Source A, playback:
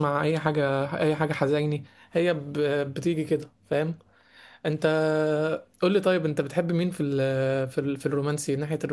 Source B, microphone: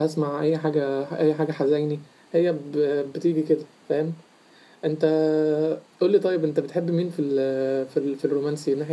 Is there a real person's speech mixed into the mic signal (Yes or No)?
No